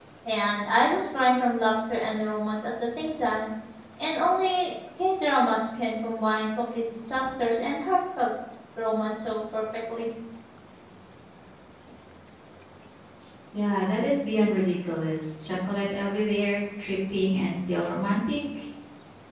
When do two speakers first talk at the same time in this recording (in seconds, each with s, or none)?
none